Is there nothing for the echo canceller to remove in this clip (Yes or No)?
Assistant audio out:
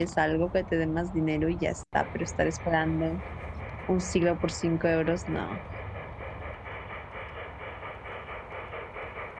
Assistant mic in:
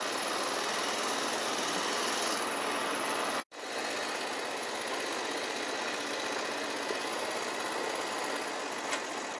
Yes